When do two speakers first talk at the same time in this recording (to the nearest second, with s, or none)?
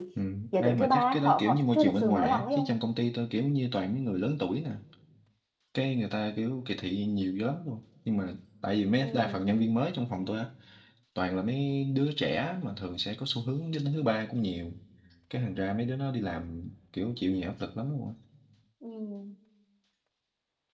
1 s